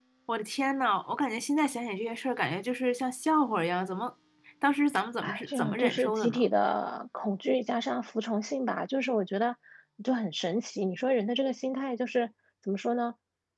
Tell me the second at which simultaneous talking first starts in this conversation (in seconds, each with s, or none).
5.2 s